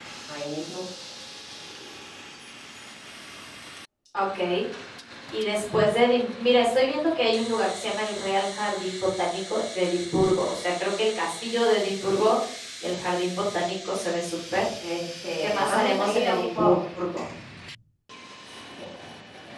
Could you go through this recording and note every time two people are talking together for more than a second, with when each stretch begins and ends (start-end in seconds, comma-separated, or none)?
15.4-16.8